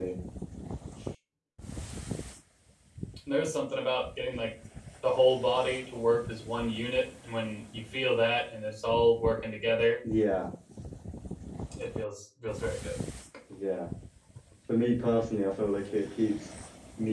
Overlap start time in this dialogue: none

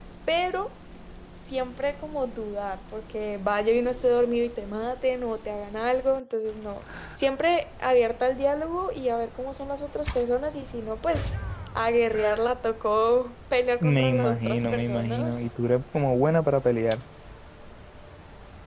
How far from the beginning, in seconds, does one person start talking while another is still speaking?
13.8 s

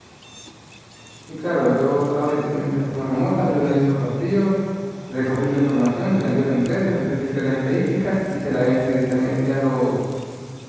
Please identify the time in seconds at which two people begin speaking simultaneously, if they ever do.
none

